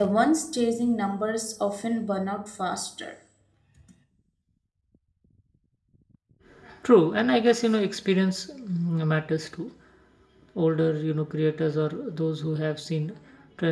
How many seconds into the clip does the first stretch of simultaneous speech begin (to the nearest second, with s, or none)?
none